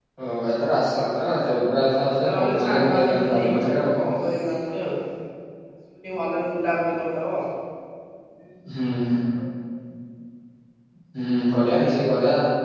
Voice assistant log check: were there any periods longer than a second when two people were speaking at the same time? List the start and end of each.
1.8-3.8

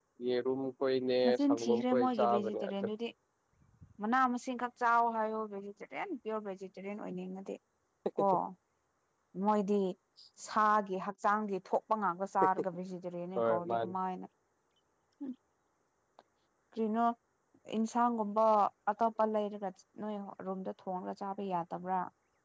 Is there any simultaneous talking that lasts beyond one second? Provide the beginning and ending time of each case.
1.3-2.7

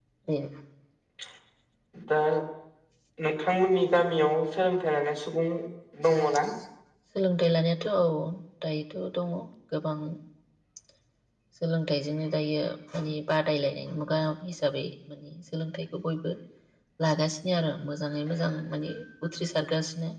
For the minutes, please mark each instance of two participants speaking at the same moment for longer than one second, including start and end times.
none

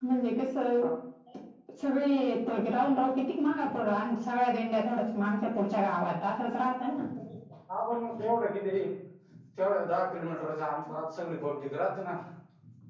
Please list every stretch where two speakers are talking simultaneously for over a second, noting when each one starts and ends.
none

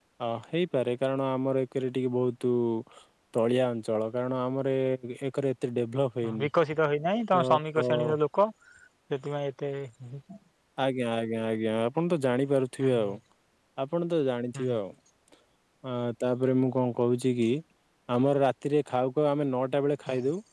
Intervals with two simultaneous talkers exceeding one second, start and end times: none

